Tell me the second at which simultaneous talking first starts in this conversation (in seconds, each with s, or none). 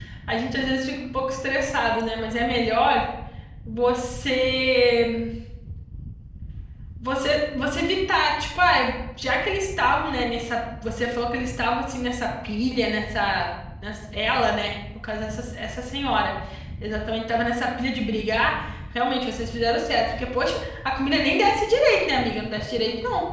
none